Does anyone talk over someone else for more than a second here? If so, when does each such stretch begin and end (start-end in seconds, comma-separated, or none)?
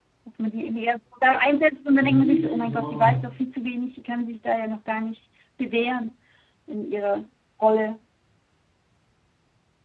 2.0-3.4